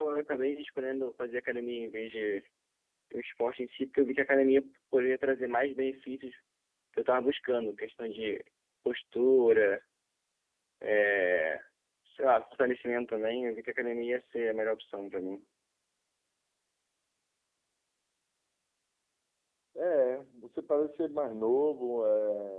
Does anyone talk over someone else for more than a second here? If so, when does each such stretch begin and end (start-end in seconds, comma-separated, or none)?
none